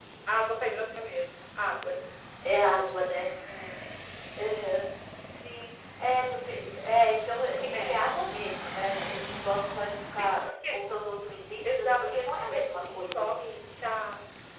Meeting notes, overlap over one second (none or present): present